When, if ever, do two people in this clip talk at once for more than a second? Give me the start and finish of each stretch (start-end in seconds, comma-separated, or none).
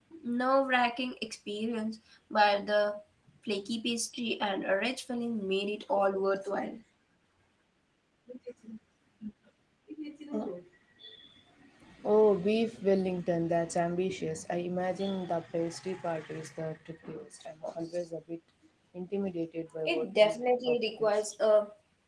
19.9-21.2